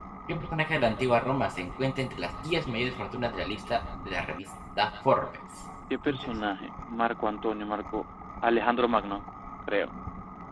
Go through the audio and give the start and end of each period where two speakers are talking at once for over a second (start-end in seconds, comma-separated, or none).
none